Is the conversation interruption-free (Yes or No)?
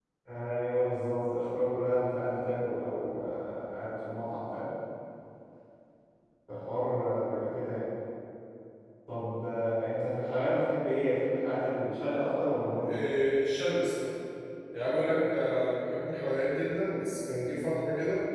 Yes